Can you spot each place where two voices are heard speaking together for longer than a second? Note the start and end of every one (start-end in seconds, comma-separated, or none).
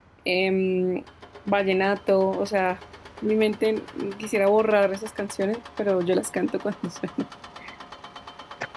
none